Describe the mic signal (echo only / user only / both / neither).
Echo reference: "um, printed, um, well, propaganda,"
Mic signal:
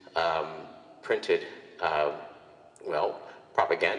echo only